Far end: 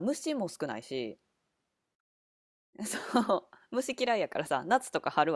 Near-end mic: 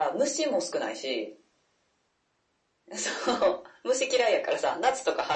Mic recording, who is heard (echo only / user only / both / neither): echo only